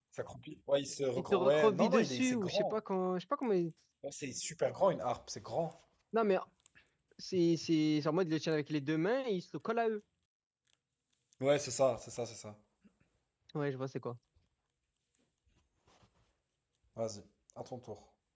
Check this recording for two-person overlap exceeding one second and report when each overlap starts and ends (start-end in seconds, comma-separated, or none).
1.2-2.8